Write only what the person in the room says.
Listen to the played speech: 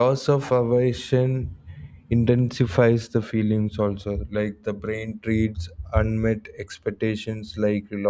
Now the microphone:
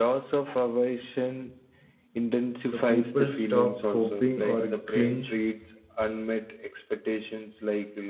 so people stop hoping or clinch

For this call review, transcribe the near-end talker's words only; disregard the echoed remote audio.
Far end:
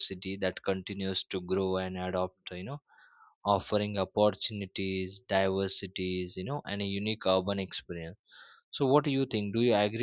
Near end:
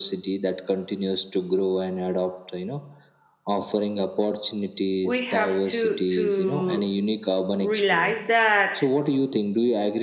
we have to to realize that

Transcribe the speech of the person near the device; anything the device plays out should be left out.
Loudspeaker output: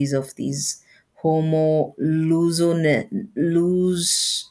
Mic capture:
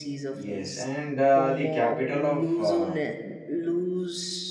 yes, and uh, the capital of uh,

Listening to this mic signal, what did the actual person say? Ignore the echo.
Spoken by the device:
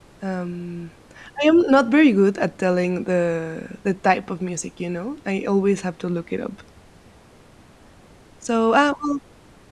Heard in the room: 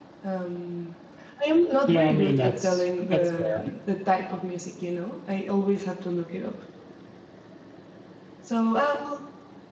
Yeah, I mean that's that's fair.

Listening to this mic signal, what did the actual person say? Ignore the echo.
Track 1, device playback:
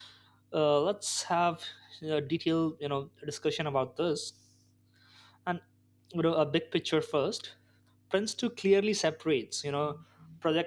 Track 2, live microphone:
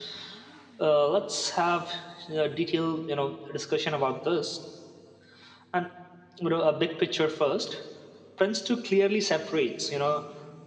none

